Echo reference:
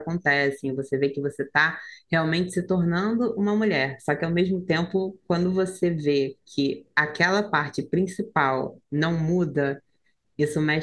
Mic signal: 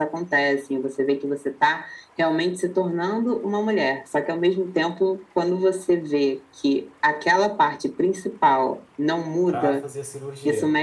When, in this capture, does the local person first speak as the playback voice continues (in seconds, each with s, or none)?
9.4 s